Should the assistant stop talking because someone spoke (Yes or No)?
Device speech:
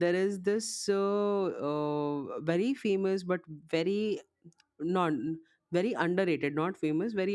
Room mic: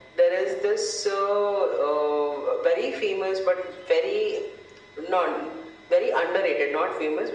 No